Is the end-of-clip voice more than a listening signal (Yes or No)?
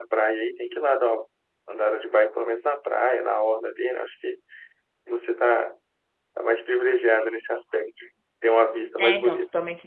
Yes